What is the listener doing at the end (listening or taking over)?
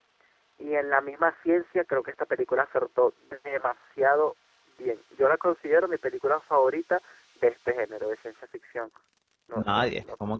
taking over